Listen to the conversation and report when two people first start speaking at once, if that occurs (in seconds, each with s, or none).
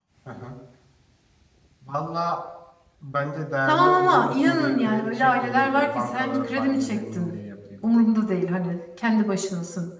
3.7 s